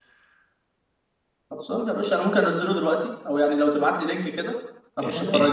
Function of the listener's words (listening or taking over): taking over